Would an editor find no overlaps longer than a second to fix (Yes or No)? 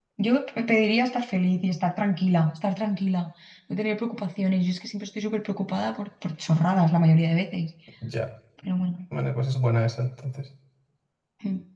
Yes